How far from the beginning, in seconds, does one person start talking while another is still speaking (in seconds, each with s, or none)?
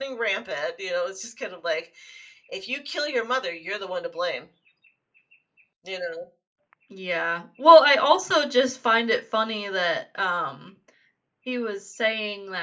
none